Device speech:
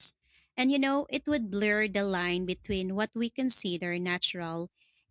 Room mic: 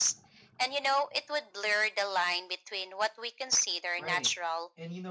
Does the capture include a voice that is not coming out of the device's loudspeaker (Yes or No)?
Yes